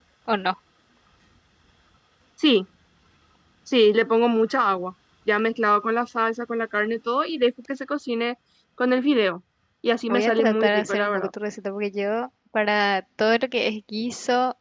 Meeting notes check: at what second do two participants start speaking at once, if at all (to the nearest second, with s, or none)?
10 s